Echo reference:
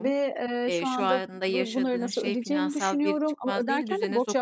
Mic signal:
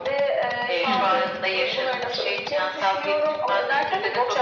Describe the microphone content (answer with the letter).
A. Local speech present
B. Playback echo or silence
A